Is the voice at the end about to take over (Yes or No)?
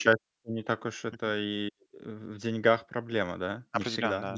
Yes